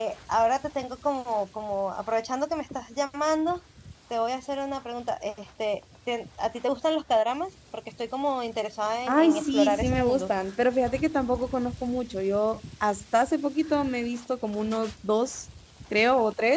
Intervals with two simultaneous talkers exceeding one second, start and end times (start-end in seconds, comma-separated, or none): 9.1-10.3